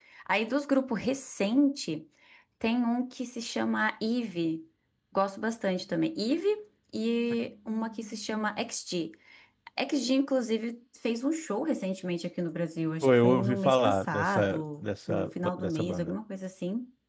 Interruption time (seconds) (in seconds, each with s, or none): 13.0 s